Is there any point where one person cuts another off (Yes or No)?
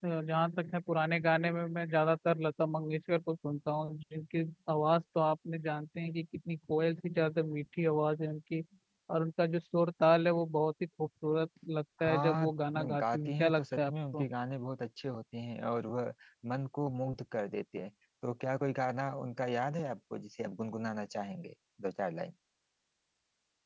Yes